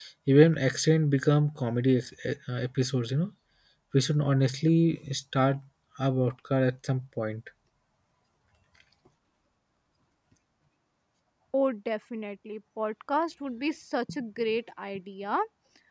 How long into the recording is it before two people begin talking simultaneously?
none

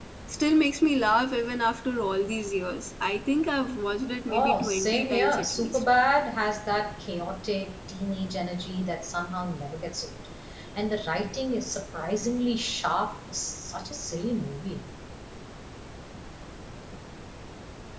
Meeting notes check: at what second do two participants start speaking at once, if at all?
4.3 s

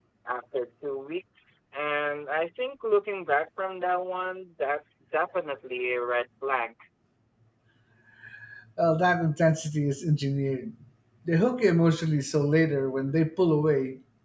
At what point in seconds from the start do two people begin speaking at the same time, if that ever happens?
none

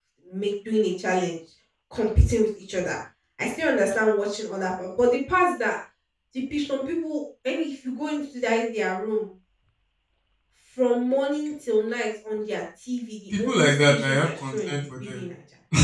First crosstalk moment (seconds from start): 13.3 s

